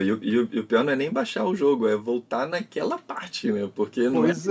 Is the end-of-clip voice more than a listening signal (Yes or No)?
Yes